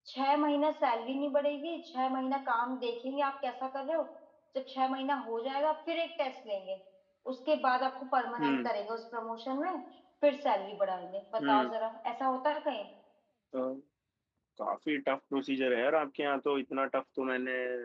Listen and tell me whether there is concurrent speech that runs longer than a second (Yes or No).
No